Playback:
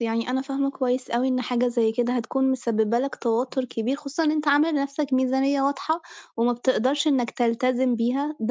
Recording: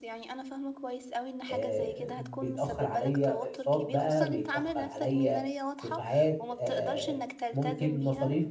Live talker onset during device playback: 1.5 s

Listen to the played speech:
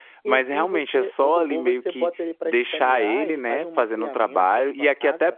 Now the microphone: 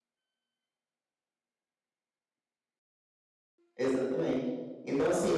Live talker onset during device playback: 3.8 s

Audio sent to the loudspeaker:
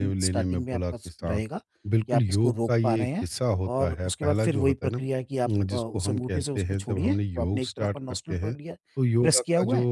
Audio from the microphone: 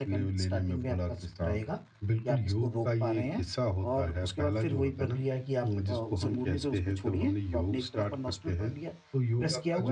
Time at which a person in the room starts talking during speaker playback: 6.2 s

